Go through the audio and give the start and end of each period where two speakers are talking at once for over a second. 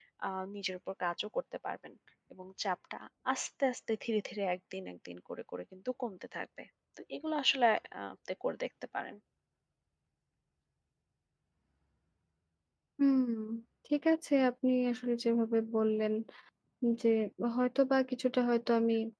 none

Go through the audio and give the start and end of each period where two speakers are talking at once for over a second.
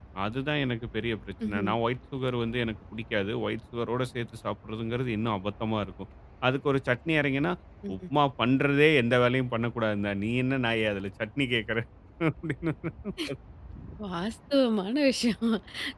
none

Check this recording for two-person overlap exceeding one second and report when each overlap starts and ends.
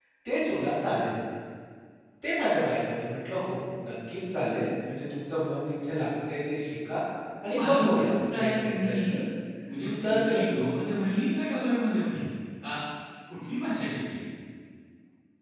7.5-9.2

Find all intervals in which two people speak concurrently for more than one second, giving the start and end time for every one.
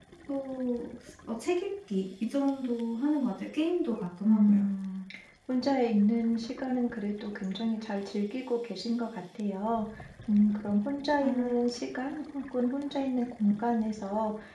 none

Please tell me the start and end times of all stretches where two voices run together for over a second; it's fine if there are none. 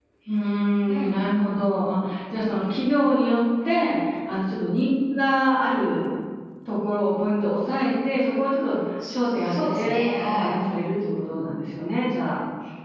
9.1-10.5

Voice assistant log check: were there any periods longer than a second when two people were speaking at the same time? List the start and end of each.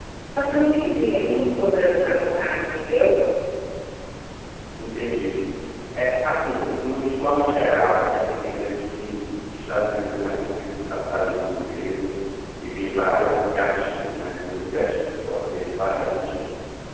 1.1-2.3

